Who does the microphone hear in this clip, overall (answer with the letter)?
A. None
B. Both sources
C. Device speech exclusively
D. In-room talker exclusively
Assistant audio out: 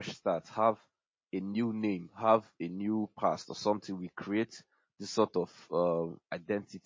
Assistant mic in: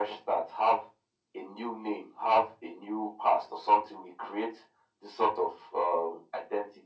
C